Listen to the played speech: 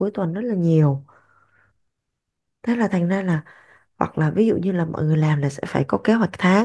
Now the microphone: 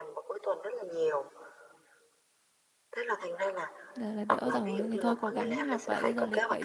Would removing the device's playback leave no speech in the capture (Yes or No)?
No